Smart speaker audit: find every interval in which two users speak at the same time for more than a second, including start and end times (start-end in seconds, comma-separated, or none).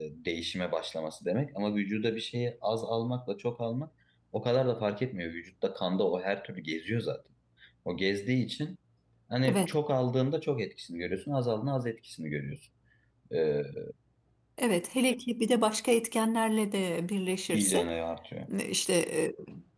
none